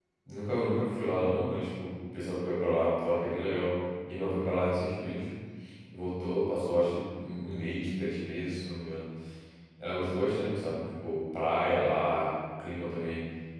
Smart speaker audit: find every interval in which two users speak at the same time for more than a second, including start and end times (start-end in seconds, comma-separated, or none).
none